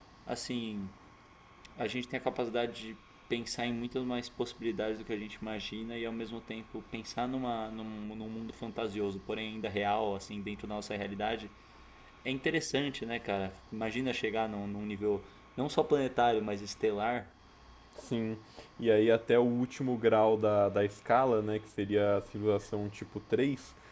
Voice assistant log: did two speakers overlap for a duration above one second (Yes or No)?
No